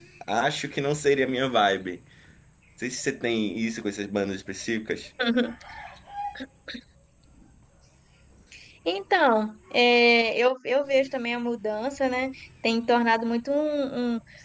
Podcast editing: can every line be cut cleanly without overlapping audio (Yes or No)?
Yes